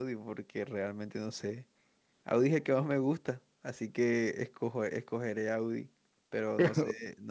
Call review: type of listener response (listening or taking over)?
listening